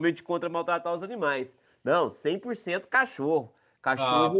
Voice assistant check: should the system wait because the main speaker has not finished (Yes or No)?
Yes